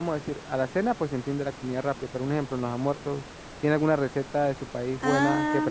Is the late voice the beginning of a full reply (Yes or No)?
Yes